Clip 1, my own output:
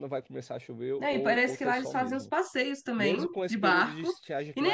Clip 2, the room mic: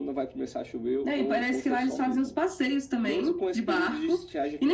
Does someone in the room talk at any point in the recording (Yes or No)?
No